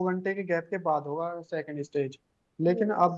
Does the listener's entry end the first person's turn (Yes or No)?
No